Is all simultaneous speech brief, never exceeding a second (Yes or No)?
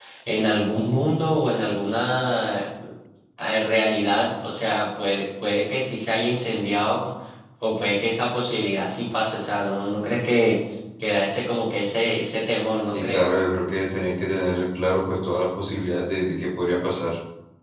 Yes